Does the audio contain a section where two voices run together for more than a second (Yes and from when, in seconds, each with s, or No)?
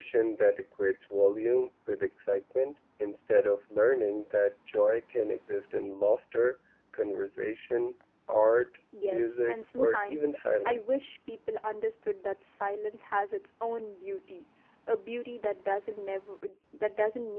Yes, from 9.0 s